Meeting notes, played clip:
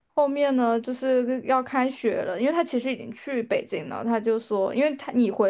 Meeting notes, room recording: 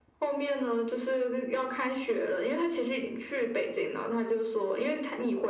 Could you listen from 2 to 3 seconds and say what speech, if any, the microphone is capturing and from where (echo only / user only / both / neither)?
echo only